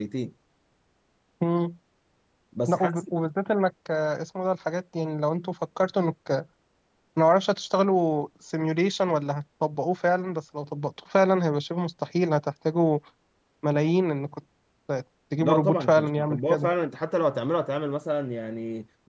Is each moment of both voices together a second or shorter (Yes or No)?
No